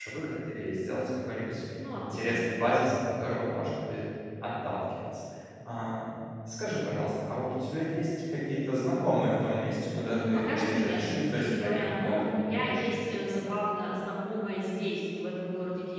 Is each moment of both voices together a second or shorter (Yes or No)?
No